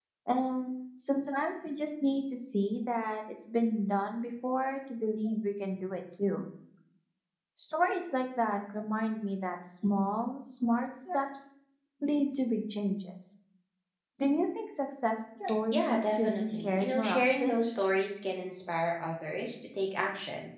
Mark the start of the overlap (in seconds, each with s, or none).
15.7 s